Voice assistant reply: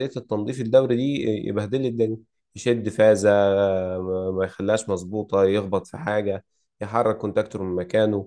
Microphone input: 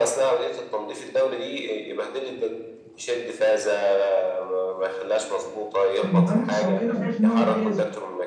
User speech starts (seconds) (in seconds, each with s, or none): 6.0 s